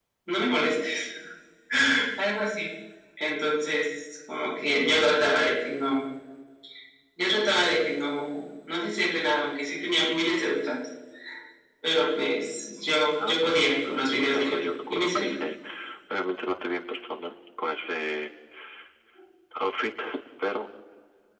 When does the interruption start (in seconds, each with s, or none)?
13.2 s